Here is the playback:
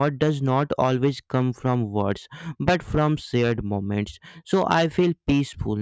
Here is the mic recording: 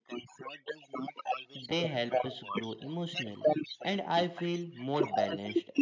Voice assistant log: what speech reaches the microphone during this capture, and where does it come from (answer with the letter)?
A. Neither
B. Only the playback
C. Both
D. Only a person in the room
C